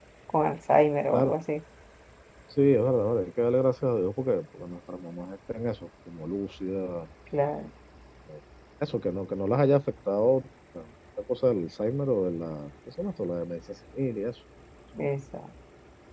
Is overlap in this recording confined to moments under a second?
Yes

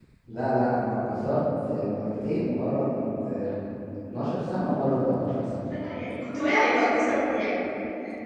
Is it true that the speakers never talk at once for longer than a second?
Yes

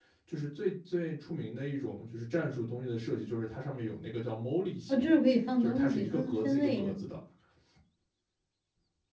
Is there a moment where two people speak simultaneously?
Yes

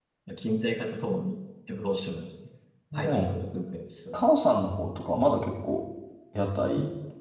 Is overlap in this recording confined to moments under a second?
Yes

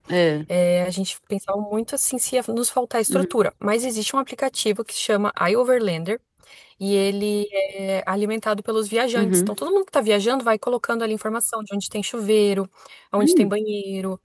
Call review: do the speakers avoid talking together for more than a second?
Yes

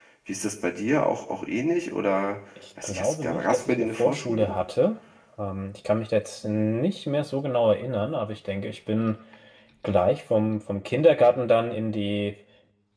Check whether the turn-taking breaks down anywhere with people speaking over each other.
Yes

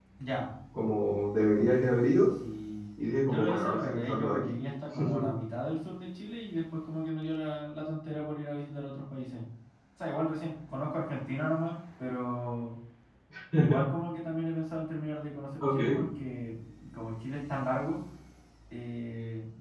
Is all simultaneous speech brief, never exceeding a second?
No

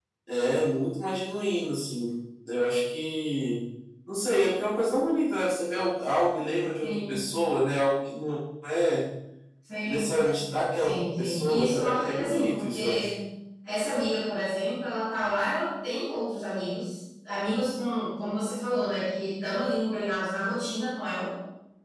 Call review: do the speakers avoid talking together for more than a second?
No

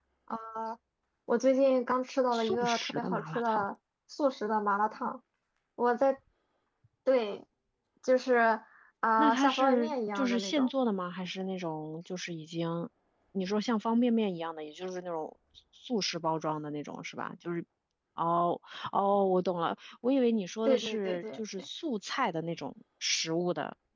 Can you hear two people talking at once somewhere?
Yes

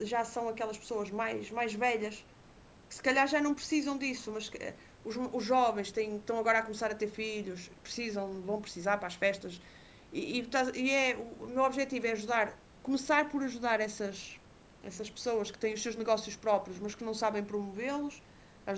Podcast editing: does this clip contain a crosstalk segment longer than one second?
No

